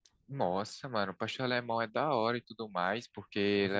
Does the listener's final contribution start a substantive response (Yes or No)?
Yes